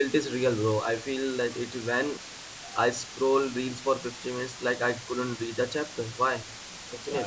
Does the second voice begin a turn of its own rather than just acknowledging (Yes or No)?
Yes